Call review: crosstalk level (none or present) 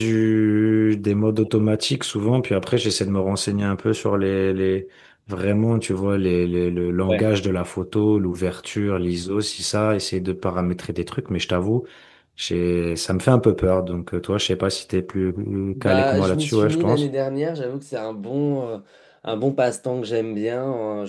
present